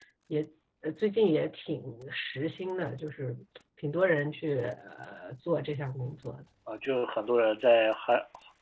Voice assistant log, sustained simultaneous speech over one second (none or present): none